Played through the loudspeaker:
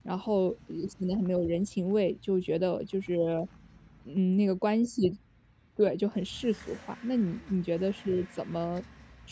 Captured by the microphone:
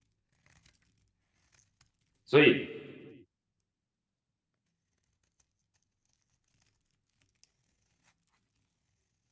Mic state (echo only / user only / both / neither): user only